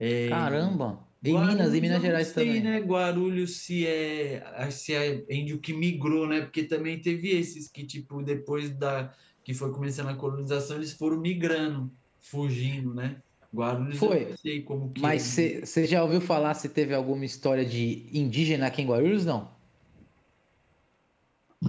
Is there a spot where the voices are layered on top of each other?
Yes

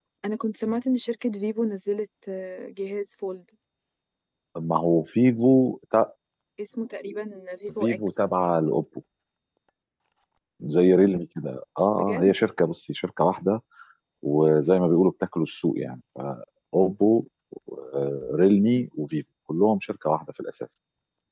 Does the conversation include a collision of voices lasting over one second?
No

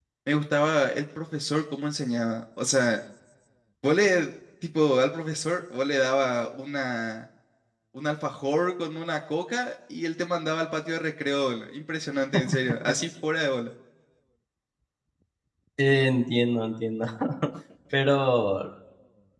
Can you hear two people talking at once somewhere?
No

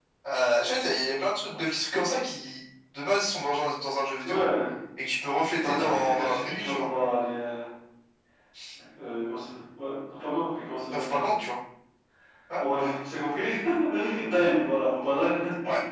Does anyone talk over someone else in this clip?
Yes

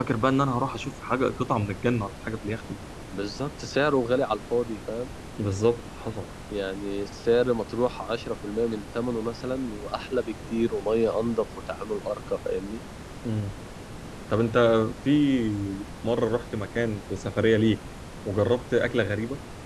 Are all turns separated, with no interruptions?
Yes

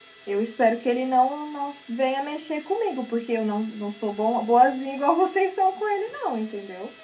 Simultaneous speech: No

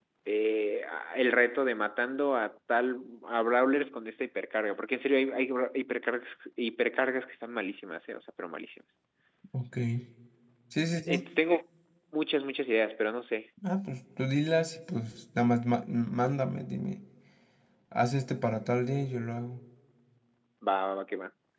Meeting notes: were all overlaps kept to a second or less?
Yes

